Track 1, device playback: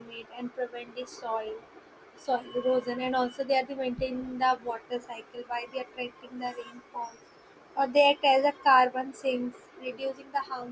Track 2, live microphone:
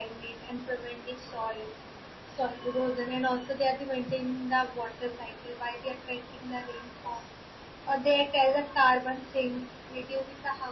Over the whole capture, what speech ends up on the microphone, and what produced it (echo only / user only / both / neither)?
echo only